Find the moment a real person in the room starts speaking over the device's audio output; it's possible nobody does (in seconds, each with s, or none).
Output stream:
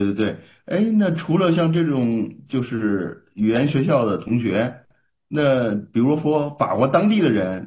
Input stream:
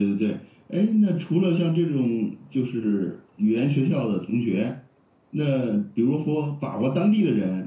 none